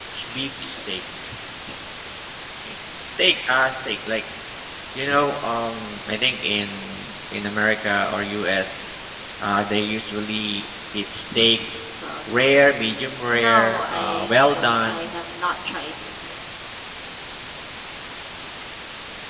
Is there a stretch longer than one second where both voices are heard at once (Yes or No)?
Yes